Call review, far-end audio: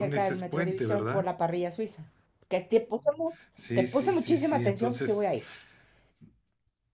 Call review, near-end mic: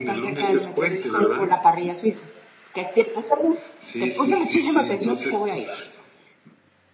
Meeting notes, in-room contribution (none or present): none